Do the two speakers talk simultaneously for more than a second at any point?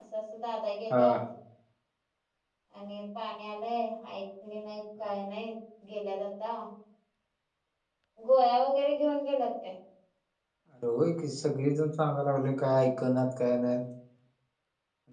No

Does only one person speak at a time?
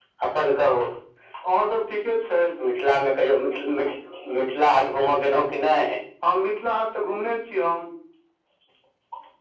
Yes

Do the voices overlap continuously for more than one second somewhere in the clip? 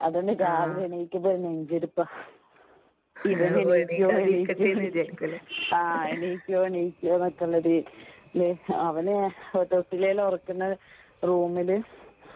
Yes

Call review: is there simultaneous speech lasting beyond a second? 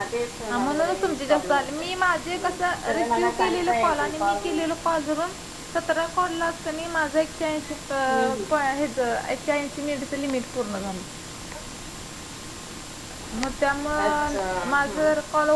Yes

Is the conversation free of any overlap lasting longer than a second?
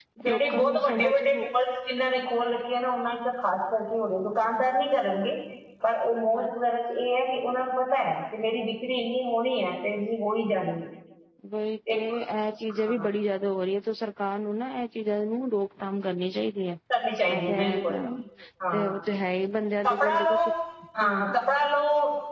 No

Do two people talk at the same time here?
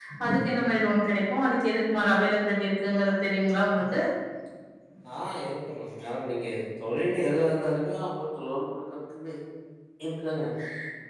No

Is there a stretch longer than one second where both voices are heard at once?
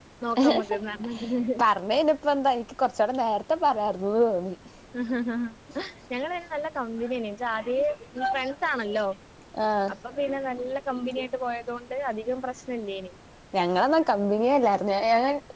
No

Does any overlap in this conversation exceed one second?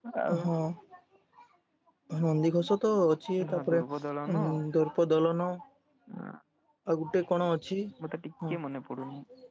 No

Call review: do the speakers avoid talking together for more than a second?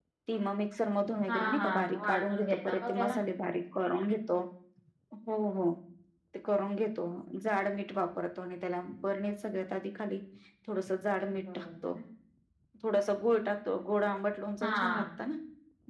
No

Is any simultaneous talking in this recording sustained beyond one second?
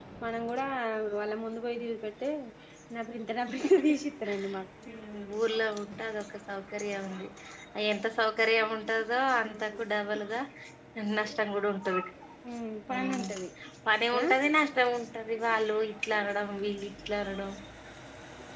No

